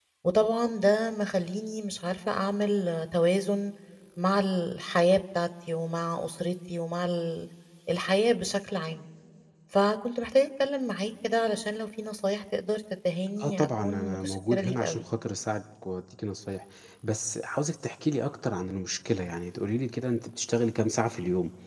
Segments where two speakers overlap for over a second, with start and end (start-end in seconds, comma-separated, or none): 13.4-15.0